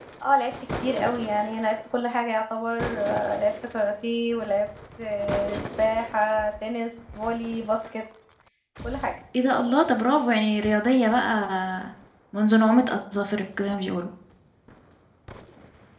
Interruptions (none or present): none